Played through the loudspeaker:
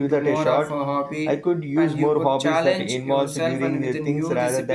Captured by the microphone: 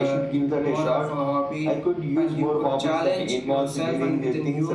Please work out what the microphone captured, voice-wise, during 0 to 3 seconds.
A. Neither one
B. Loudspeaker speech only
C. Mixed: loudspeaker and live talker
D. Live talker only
B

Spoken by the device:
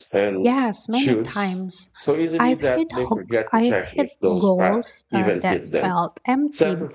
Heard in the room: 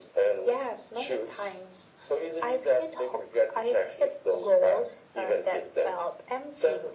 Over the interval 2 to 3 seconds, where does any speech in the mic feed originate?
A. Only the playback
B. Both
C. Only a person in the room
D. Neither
A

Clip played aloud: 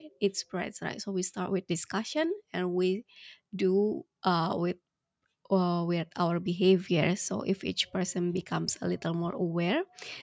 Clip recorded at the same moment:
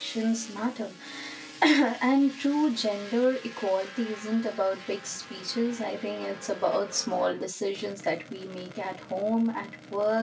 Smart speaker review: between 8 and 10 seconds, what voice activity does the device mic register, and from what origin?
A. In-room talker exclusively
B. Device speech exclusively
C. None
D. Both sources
A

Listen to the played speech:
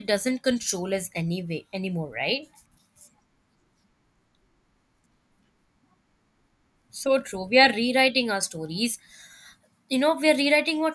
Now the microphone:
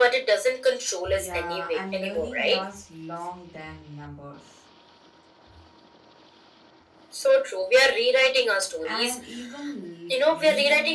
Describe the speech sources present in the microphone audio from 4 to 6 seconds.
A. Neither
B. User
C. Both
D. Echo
B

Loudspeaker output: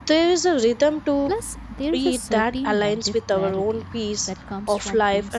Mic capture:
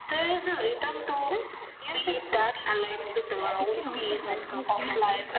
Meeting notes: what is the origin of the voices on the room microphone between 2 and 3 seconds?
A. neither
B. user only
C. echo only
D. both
C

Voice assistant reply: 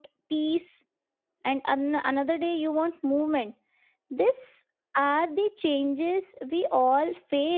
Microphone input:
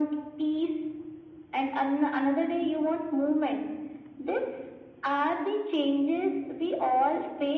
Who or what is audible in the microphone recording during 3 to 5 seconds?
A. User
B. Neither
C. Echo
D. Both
C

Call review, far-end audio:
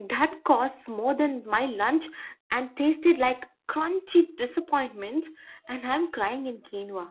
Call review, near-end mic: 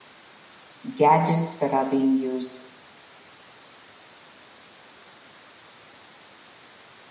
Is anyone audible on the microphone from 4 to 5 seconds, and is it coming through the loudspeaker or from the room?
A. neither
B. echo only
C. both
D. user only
A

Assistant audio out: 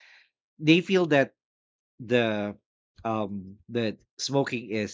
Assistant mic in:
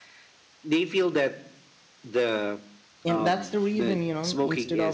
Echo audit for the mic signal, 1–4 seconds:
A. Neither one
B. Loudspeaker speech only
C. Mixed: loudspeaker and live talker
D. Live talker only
C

